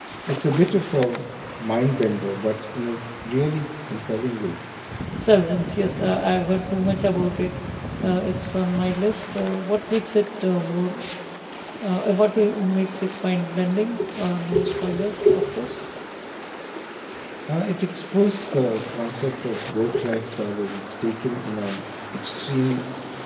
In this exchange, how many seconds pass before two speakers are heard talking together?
none

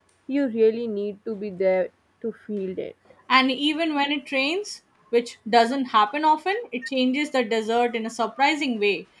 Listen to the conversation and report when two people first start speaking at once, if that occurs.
none

